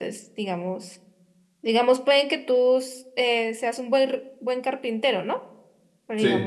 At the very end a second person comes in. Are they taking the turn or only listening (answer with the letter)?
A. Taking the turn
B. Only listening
B